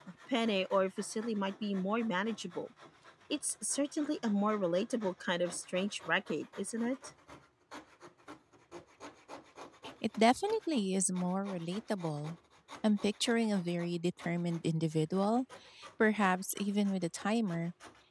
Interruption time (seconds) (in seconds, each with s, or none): none